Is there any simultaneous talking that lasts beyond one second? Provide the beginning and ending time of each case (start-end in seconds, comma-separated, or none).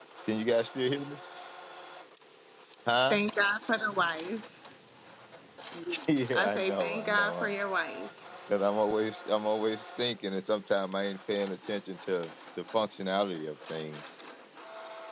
6.3-7.6